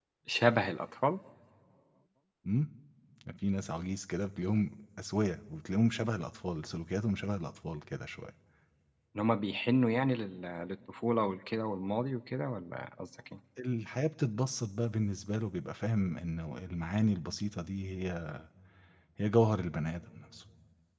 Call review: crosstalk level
none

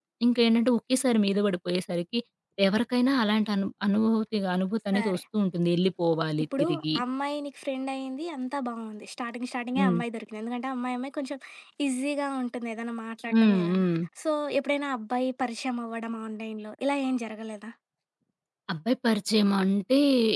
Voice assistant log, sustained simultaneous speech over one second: none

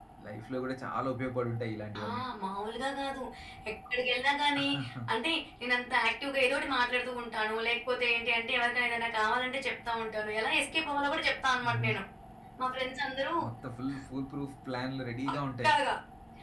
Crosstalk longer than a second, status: none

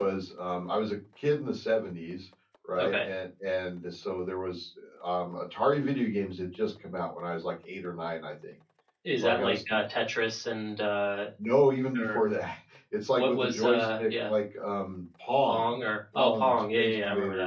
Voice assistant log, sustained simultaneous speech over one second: present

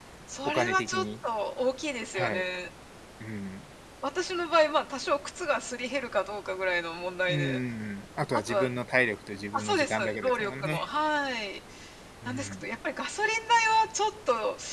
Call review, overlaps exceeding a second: present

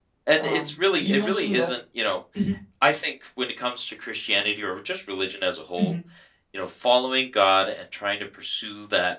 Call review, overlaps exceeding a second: present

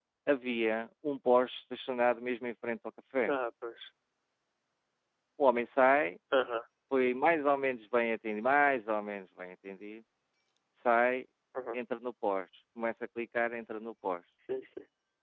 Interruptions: none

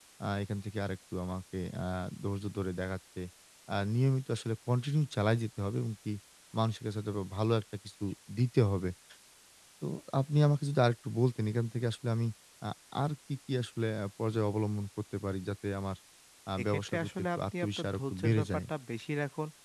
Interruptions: present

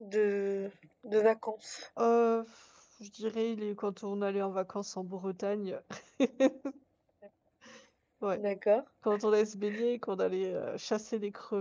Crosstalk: none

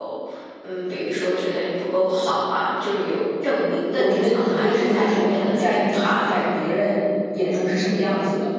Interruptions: present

